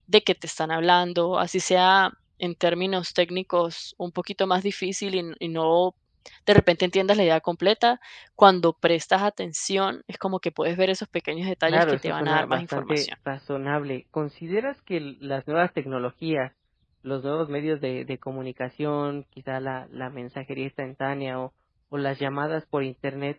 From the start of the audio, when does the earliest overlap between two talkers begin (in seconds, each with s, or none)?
11.7 s